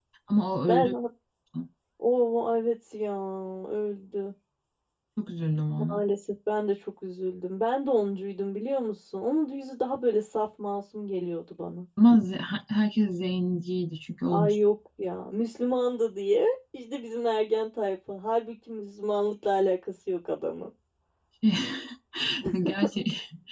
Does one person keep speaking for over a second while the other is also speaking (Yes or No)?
No